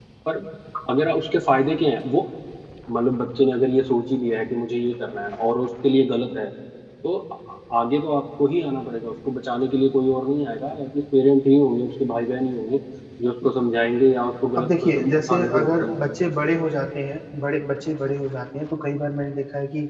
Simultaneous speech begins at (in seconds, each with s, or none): 14.6 s